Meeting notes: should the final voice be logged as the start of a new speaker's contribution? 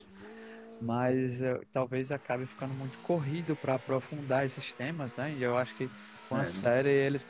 No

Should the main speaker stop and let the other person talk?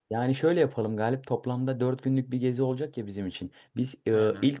No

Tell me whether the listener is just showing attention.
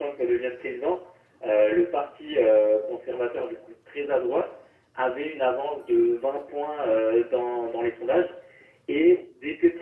Yes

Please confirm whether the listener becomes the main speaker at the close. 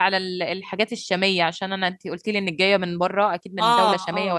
No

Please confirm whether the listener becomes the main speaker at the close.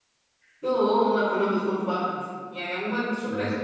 No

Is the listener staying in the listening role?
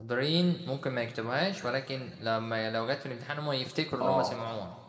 No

